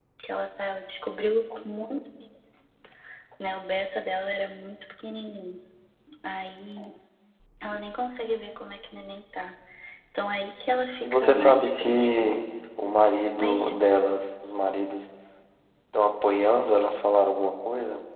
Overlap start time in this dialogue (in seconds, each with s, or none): 11.0 s